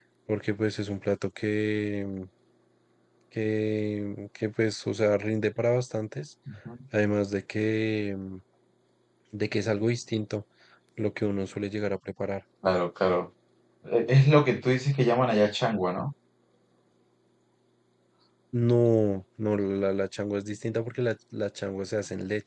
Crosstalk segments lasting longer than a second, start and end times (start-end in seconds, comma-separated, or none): none